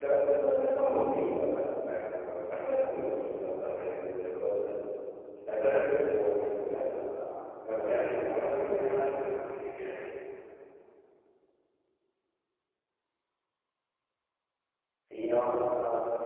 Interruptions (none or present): present